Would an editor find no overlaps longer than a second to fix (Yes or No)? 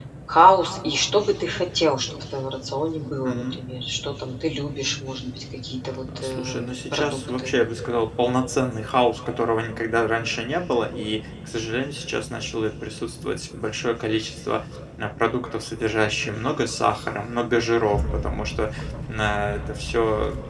No